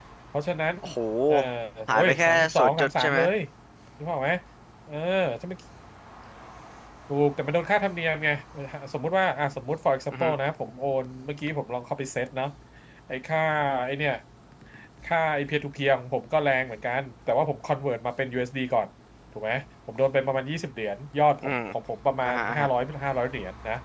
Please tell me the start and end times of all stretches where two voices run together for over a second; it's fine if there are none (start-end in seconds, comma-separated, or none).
1.9-3.2